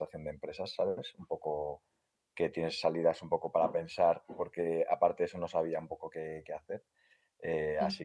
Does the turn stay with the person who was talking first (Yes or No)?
Yes